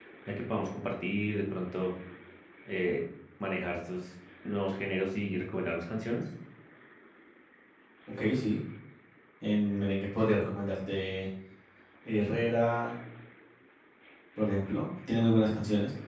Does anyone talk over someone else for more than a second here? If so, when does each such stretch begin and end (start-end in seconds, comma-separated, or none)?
none